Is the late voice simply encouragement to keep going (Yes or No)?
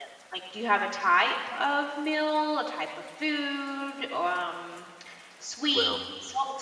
Yes